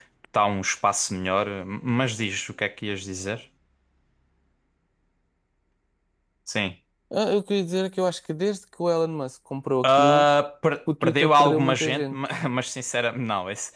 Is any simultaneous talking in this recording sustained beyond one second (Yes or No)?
Yes